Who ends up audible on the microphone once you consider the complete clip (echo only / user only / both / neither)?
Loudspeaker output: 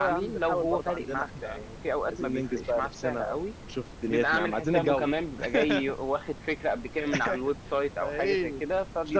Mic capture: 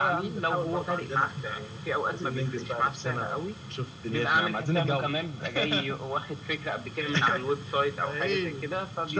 echo only